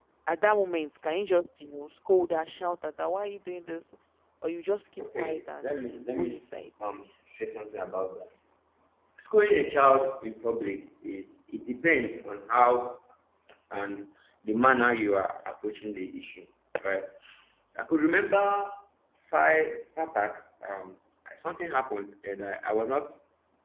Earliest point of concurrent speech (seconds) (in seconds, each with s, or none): 5.0 s